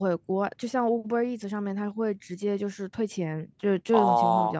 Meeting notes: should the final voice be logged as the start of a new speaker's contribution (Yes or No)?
Yes